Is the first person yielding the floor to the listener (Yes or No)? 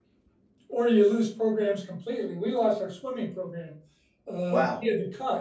No